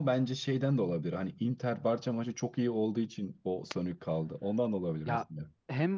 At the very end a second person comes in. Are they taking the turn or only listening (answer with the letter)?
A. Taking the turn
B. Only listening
A